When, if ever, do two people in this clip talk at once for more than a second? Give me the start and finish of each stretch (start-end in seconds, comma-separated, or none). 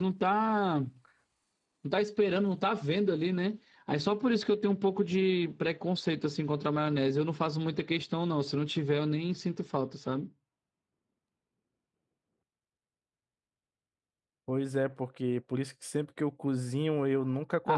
none